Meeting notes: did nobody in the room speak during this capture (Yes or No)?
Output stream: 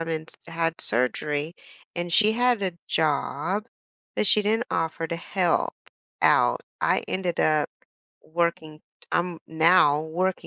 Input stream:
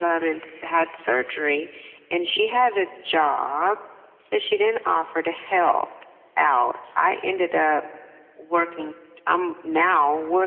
Yes